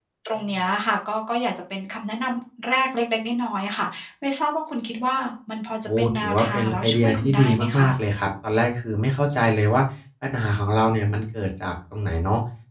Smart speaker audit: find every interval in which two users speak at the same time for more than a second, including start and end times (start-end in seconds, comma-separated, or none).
5.9-7.9